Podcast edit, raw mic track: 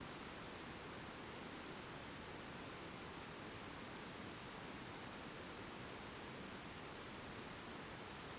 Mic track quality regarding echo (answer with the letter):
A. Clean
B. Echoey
A